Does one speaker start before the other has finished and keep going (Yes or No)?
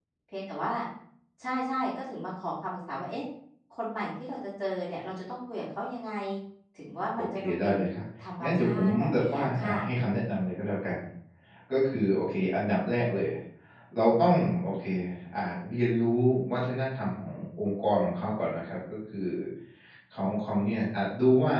Yes